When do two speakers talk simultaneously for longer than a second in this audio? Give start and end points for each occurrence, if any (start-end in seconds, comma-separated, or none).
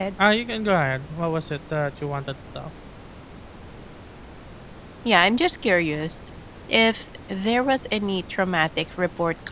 none